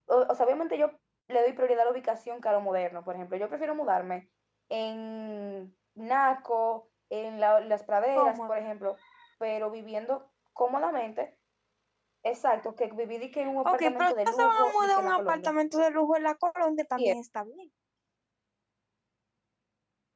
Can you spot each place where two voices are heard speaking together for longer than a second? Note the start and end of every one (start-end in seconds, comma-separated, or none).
13.6-15.5